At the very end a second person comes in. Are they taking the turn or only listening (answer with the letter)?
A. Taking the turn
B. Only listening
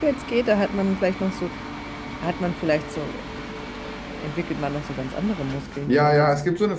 A